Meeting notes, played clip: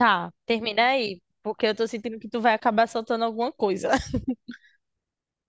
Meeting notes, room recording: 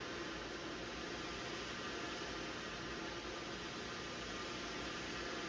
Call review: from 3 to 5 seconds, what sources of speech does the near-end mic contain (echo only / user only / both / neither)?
neither